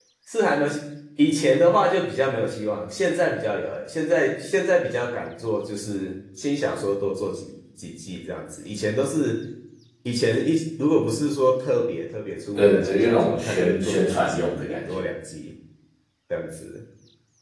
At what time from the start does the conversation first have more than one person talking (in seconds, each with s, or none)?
12.6 s